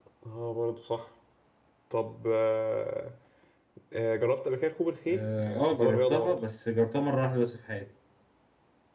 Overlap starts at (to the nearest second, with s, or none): 5 s